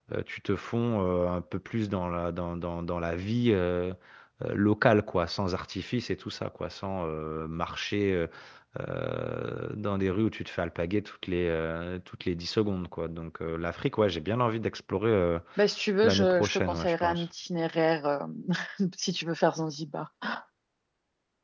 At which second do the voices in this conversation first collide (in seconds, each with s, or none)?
16.0 s